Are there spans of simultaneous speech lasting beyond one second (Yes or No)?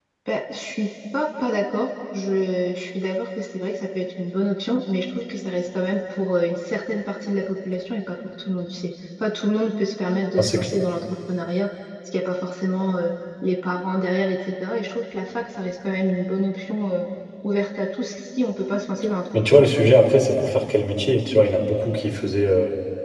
No